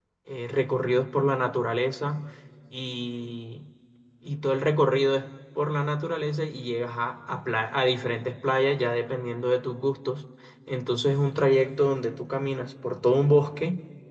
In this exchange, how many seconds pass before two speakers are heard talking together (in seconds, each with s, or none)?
none